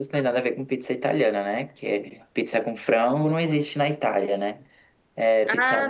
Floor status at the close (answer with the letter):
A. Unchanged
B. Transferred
A